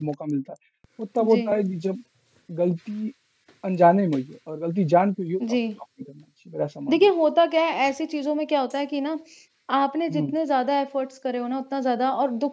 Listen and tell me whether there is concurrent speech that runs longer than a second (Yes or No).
No